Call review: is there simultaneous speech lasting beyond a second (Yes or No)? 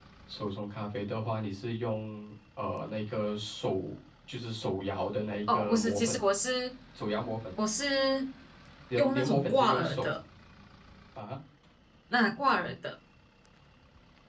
Yes